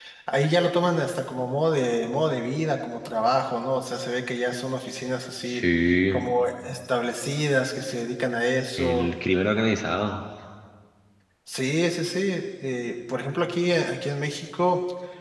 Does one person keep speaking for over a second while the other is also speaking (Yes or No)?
No